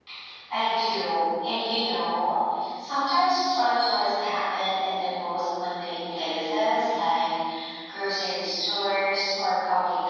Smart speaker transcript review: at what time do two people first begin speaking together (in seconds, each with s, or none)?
none